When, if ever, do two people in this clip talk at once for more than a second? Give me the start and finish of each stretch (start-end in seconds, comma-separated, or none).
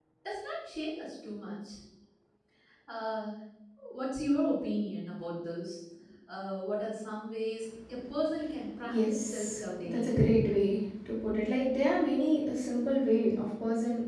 8.8-10.2